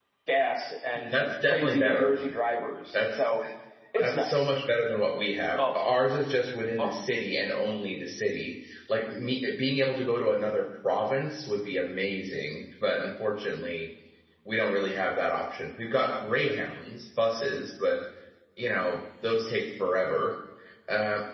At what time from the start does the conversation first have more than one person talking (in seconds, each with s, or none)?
0.9 s